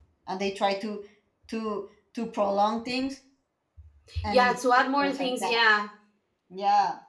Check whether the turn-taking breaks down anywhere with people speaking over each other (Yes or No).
Yes